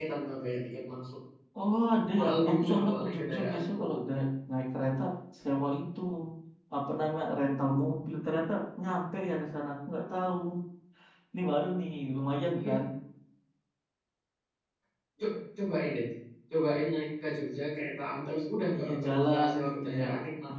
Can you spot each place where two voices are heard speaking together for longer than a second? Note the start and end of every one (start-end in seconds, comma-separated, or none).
2.2-4.0, 18.7-20.0